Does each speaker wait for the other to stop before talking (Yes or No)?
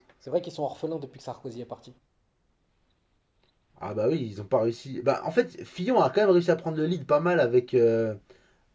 Yes